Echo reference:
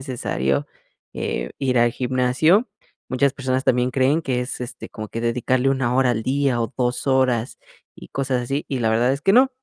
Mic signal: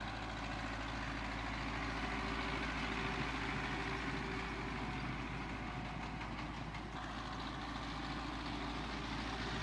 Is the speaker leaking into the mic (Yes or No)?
No